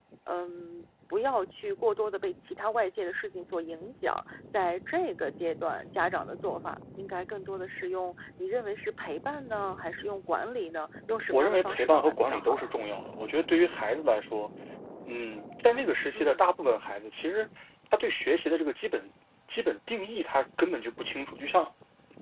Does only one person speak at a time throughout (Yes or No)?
No